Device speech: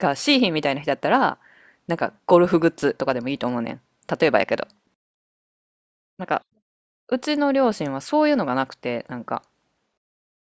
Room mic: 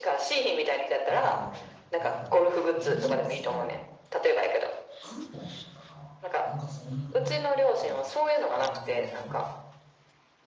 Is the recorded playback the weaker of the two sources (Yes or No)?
No